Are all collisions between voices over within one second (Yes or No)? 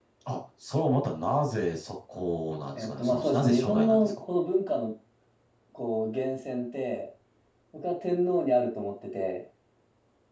No